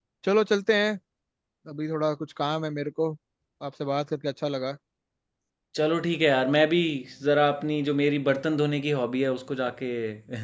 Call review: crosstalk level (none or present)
none